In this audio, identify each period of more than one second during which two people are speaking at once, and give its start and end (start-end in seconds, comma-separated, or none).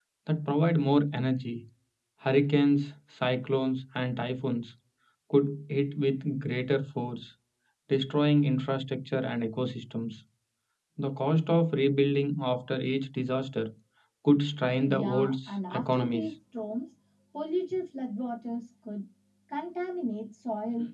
14.9-16.3